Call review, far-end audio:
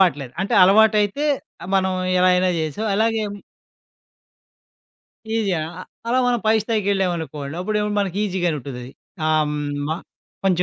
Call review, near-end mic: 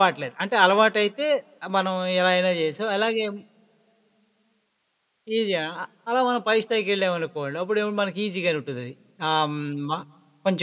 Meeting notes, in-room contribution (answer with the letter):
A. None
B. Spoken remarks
A